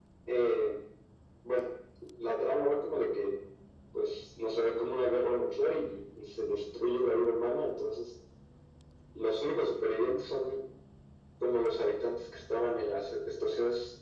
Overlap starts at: none

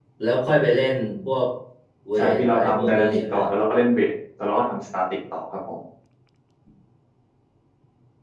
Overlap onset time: 2.1 s

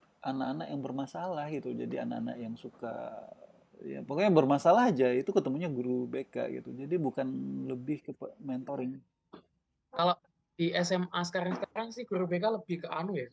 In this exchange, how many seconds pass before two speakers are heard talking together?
none

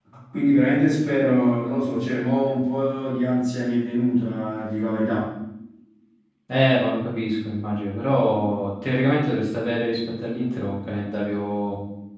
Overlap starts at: none

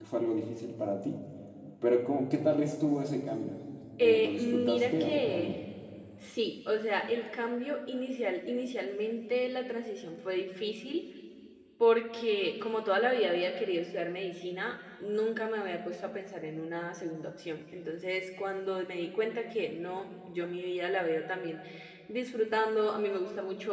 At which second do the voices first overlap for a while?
4.0 s

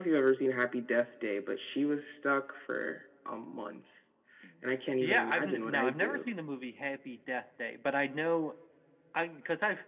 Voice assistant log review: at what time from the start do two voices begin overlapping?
5.0 s

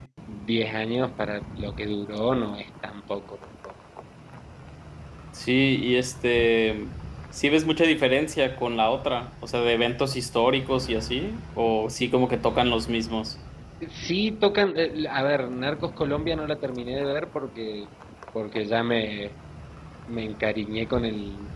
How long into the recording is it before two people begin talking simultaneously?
none

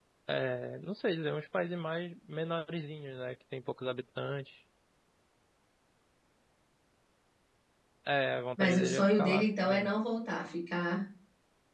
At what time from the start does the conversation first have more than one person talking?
8.6 s

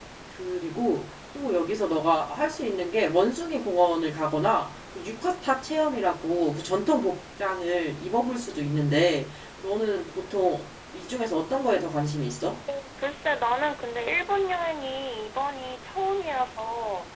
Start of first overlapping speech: none

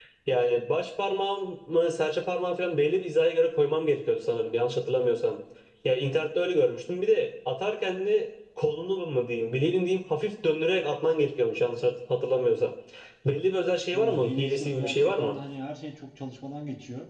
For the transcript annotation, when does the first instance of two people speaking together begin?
13.9 s

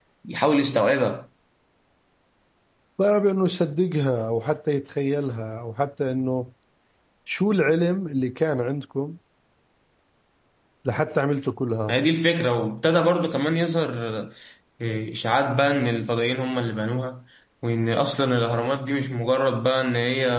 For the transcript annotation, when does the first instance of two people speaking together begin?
none

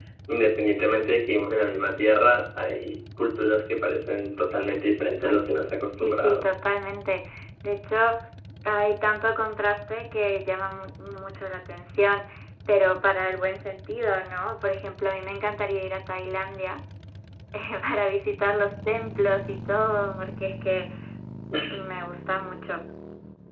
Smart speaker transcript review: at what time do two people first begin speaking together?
5.2 s

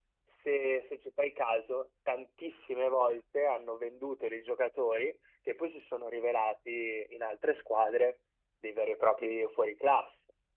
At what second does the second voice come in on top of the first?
none

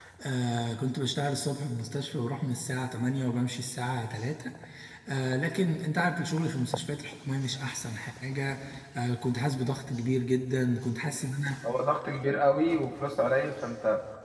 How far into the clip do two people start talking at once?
none

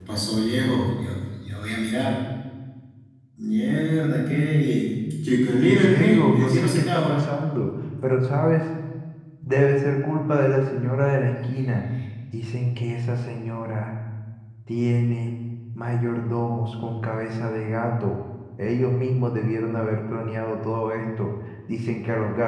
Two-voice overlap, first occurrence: 5.6 s

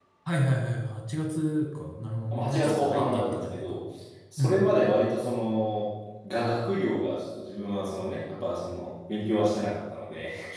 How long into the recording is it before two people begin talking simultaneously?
2.3 s

